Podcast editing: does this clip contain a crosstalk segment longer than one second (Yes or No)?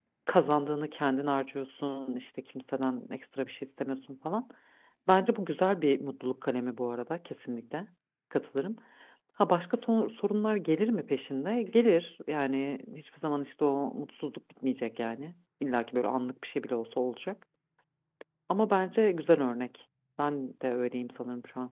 No